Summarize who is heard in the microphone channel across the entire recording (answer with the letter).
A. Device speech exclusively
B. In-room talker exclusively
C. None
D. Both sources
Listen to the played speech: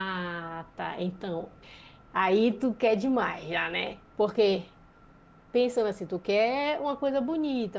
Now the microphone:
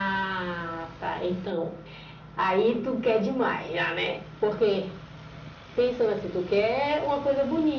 A